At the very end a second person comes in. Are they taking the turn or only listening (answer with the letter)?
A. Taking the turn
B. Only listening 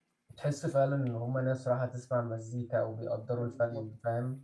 A